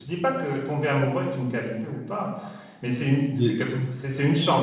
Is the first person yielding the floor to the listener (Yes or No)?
No